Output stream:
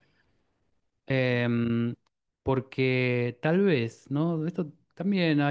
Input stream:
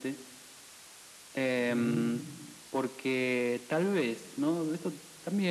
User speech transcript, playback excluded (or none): ujú.